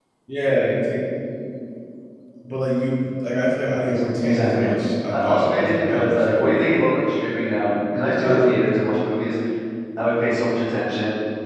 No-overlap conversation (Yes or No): No